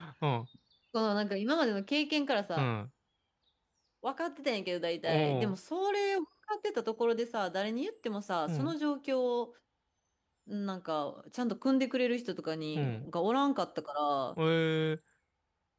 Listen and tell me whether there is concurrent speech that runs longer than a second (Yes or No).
No